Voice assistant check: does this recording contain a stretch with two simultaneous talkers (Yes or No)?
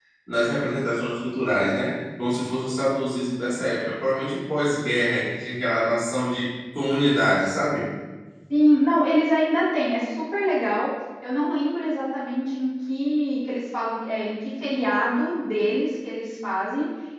No